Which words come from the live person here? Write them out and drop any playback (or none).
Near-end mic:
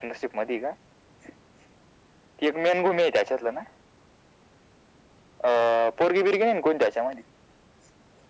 none